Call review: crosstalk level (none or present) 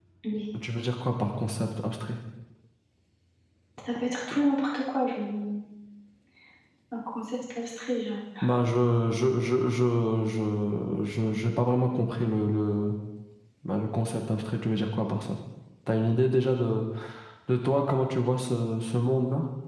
none